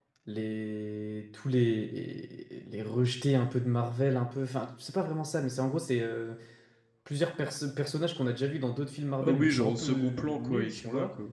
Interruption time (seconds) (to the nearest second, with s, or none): 9 s